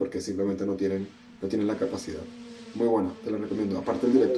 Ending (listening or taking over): listening